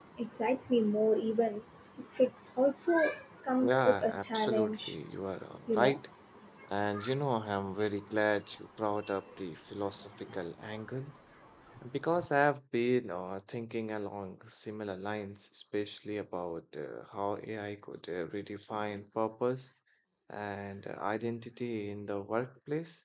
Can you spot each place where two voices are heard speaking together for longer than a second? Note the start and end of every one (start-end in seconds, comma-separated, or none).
3.7-4.9